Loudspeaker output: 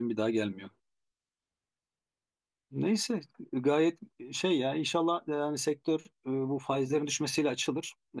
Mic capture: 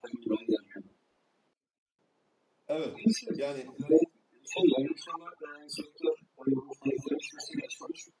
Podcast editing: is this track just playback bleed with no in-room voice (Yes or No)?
No